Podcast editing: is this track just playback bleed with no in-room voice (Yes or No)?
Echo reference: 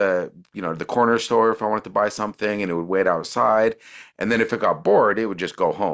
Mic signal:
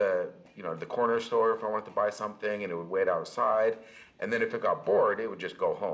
Yes